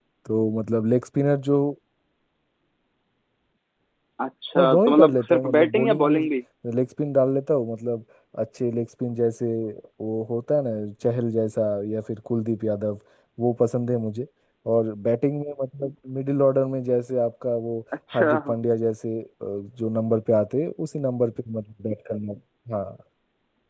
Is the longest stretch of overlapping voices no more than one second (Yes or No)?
No